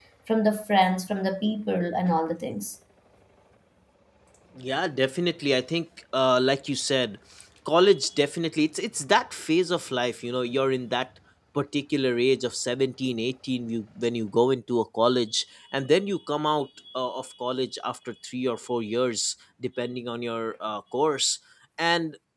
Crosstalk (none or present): none